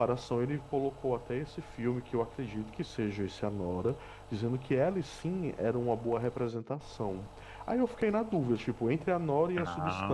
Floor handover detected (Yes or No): No